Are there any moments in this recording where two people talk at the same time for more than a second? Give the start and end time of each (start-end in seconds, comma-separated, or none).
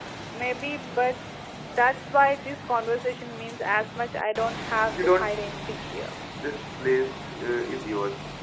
none